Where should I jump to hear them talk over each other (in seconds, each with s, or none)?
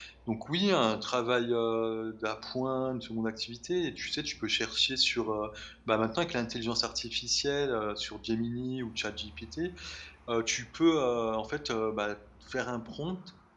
none